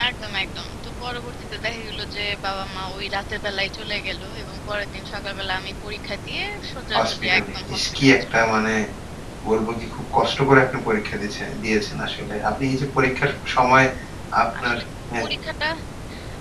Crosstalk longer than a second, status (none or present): present